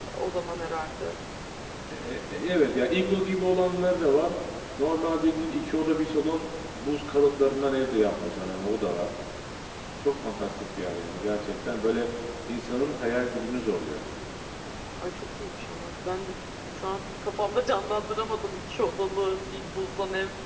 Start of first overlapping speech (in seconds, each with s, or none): none